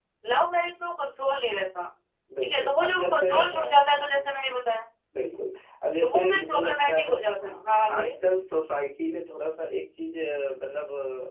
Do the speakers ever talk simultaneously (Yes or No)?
Yes